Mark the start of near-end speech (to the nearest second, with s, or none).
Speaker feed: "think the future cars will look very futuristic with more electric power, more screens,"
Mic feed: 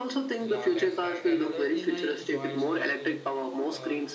0 s